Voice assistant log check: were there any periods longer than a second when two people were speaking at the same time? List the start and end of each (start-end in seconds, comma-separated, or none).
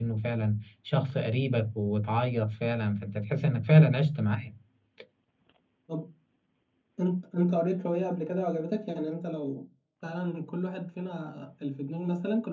none